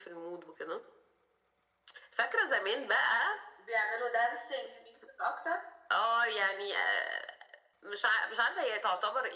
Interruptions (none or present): none